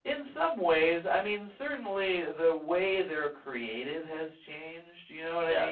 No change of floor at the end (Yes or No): No